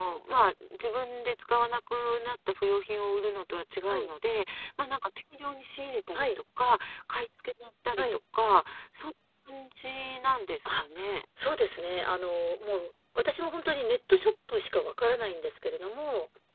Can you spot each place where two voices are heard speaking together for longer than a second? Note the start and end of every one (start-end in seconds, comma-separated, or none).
none